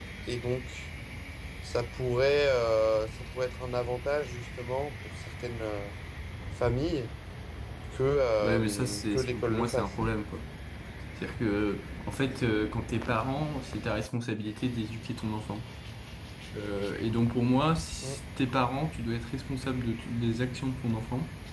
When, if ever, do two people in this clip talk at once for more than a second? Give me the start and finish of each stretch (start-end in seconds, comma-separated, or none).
8.4-9.9